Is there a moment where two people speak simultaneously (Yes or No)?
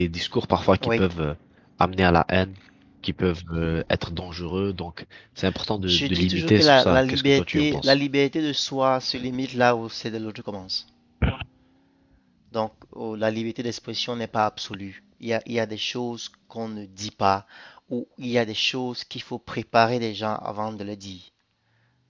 Yes